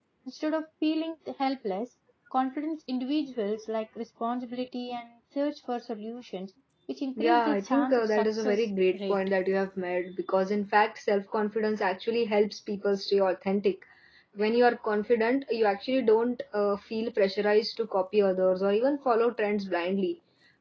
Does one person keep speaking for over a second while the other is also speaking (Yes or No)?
Yes